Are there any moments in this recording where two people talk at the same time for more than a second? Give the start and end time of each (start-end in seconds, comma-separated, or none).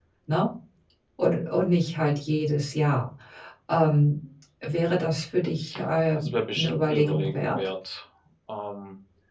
6.2-7.6